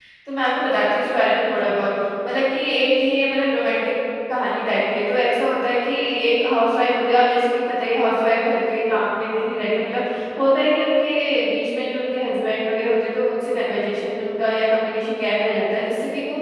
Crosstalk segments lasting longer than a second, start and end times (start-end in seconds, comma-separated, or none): none